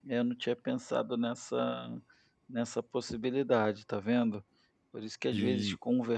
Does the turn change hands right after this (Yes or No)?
No